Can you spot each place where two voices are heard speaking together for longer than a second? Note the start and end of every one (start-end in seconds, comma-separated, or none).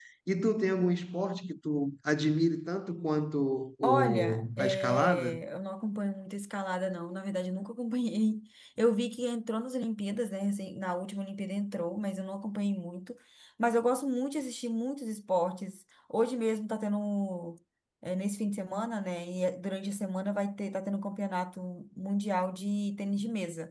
3.8-5.4